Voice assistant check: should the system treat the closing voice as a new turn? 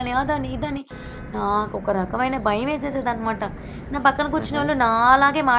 No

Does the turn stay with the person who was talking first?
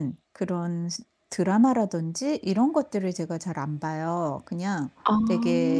Yes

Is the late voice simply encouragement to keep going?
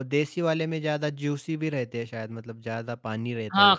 No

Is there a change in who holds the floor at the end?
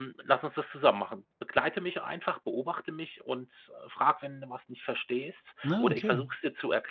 No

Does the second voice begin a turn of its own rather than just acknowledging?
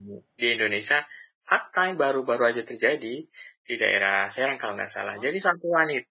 No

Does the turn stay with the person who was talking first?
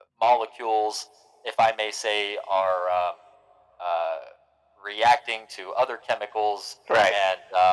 Yes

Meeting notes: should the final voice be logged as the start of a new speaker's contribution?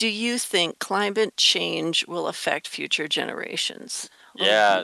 Yes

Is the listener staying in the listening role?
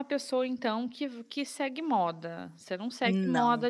Yes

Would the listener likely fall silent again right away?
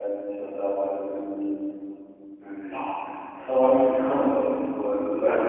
Yes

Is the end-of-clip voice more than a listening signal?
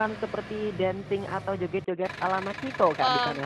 Yes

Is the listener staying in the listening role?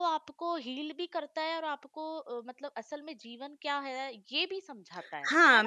No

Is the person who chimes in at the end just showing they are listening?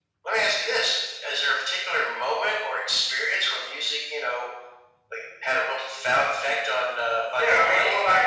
No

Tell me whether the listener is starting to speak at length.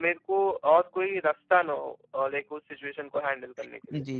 Yes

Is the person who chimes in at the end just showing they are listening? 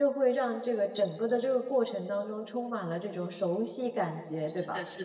No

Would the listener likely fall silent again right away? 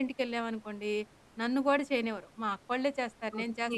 No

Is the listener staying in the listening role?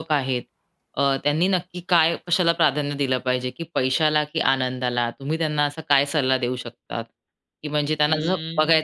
Yes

